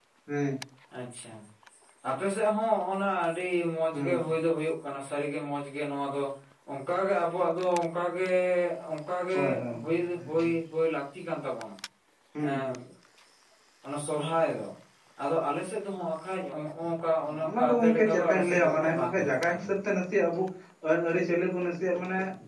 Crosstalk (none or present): present